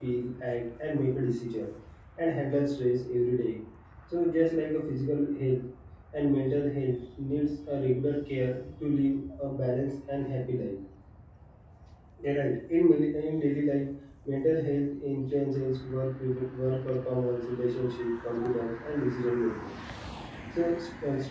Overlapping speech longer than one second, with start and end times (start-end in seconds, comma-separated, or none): none